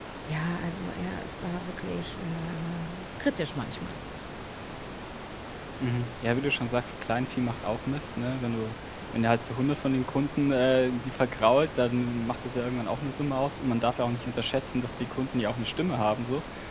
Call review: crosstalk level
none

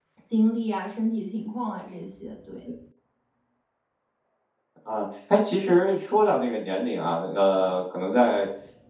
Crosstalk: none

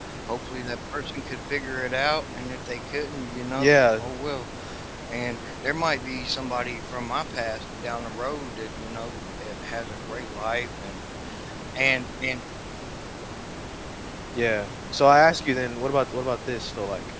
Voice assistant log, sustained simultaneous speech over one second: none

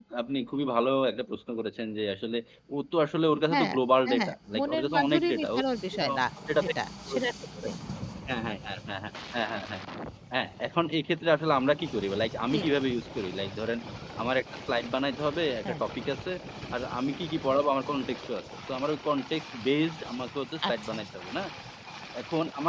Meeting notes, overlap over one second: present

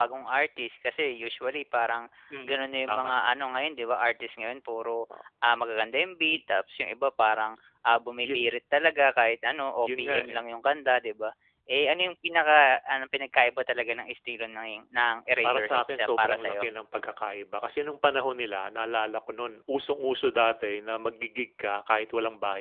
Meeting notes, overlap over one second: present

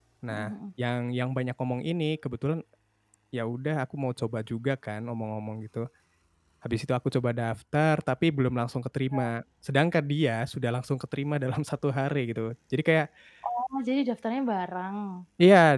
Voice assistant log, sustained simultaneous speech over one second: none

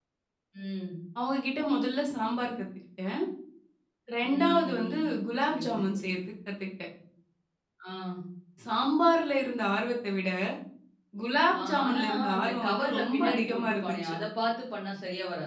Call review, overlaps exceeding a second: present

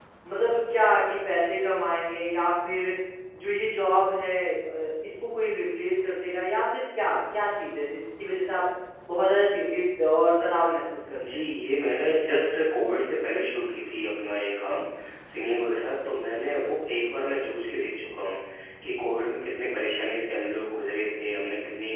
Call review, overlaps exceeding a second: none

